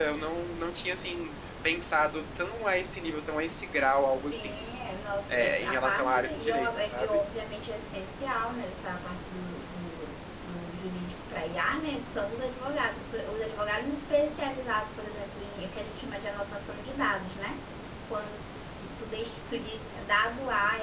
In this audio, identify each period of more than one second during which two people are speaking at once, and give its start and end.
5.3-7.1

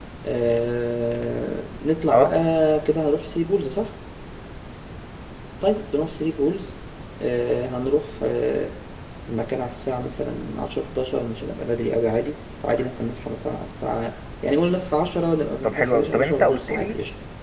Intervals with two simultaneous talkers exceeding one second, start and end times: 15.6-16.9

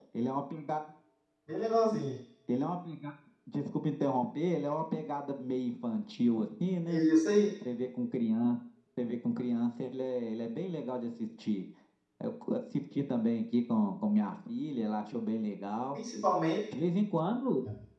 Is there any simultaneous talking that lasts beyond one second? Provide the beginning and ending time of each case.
none

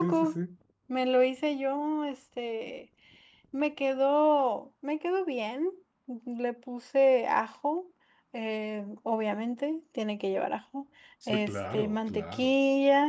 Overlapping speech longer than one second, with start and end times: 11.3-12.5

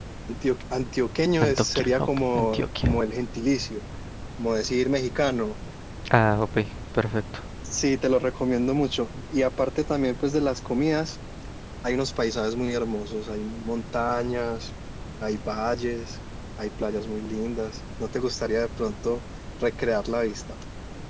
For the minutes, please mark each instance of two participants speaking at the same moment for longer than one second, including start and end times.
1.4-2.9

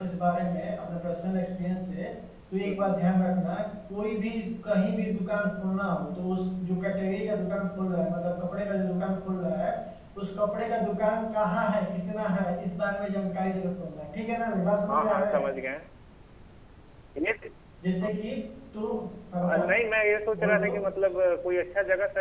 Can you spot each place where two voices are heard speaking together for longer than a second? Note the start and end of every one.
none

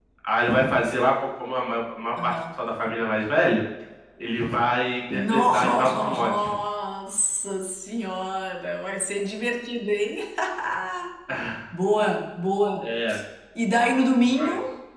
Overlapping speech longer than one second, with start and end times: 5.1-6.6

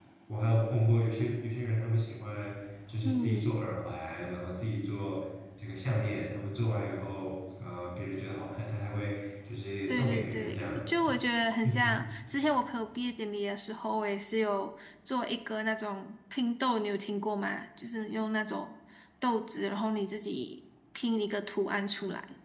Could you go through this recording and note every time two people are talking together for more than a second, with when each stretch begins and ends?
9.9-11.2

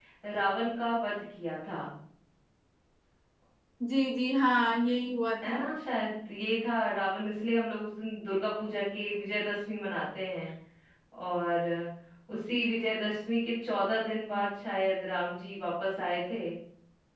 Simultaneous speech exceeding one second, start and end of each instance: none

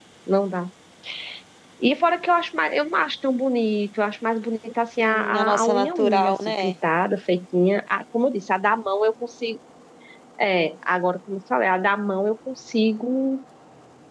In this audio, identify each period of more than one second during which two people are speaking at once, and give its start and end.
5.0-6.7

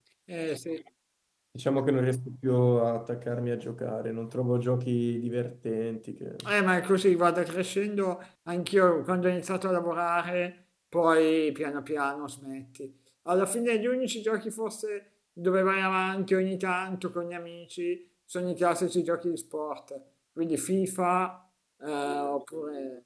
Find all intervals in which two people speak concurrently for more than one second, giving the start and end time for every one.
none

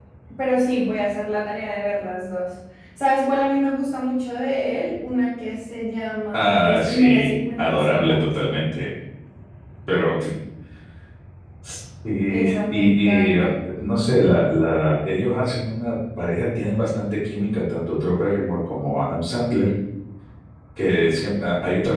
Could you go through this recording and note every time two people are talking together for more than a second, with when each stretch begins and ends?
6.3-8.2, 12.3-13.5

